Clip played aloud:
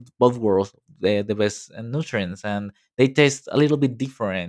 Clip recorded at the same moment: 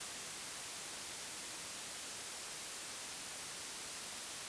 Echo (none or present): none